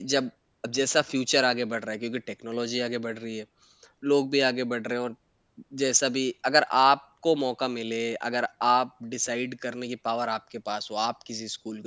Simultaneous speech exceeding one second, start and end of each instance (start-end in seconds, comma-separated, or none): none